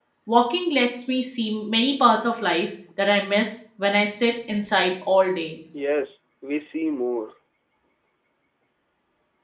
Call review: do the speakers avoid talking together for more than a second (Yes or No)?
Yes